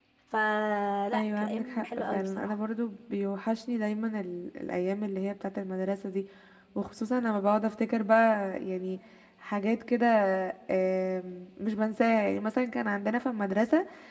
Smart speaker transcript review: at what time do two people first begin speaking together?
1 s

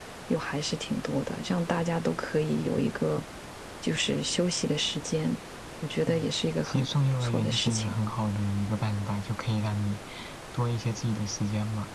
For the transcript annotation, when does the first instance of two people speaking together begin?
6 s

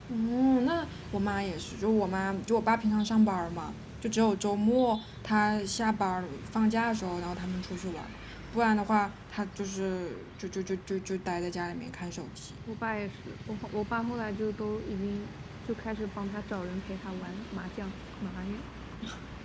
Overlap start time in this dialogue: none

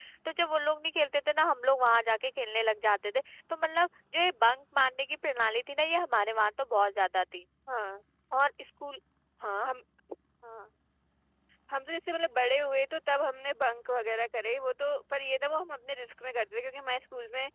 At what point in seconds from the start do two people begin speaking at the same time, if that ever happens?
none

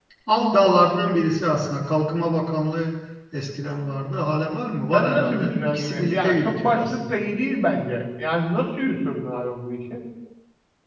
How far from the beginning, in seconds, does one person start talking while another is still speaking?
5 s

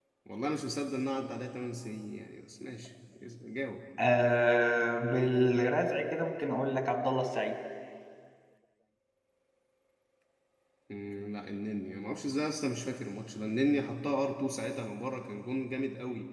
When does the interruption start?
none

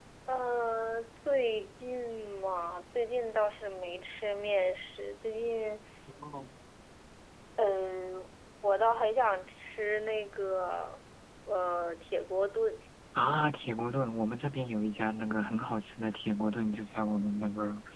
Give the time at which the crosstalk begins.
none

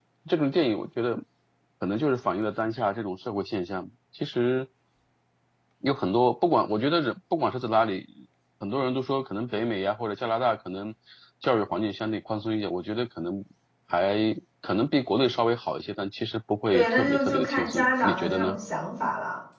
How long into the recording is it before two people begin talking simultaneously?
17 s

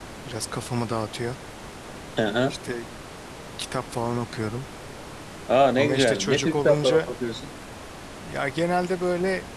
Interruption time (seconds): 6 s

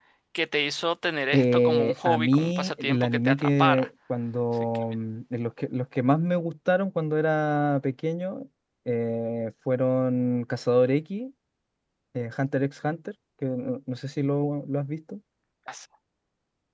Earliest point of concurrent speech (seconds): 1 s

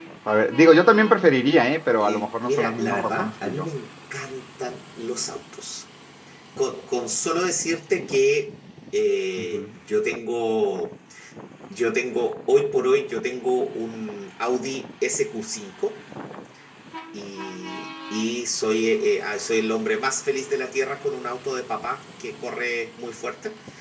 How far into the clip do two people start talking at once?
2 s

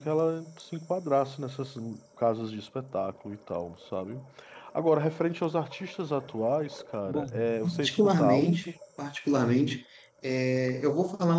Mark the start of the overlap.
7 s

